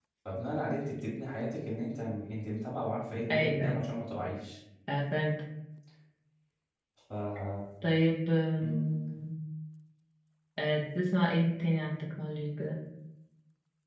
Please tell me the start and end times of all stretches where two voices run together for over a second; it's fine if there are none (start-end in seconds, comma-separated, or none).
none